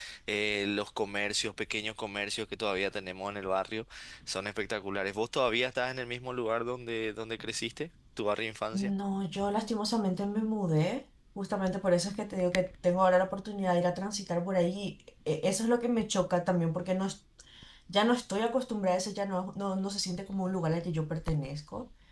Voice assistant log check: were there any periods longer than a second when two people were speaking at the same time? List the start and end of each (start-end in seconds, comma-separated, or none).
none